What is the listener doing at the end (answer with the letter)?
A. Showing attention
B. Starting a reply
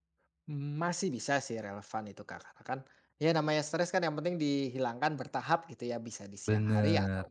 A